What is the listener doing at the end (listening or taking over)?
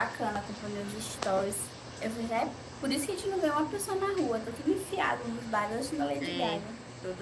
taking over